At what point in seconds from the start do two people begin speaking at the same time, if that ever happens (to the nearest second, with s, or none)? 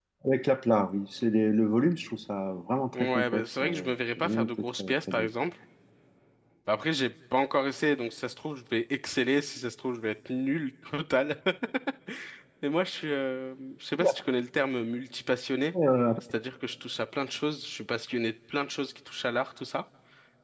3 s